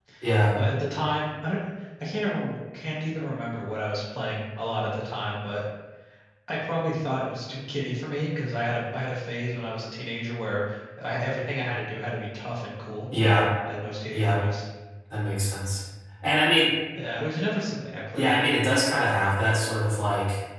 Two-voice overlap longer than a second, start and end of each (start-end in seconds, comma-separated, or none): none